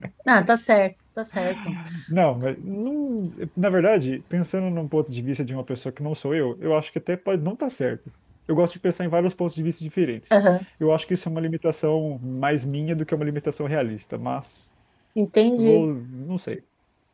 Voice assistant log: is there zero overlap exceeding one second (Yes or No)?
Yes